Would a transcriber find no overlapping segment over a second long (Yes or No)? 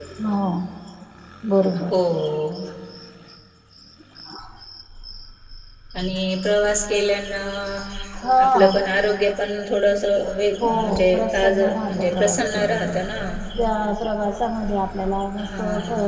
No